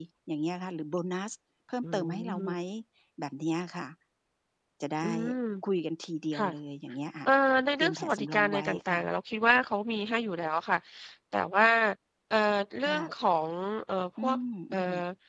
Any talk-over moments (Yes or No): Yes